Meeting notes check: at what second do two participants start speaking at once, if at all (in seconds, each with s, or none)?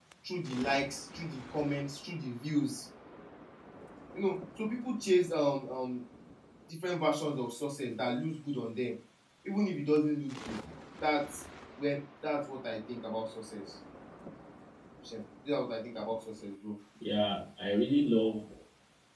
none